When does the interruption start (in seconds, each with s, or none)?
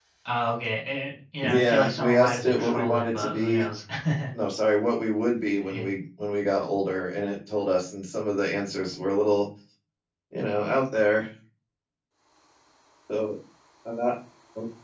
1.4 s